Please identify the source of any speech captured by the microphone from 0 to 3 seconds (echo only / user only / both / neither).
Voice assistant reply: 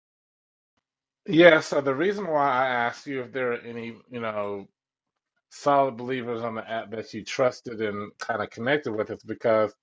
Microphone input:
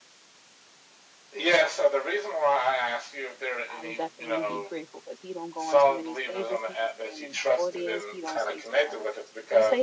echo only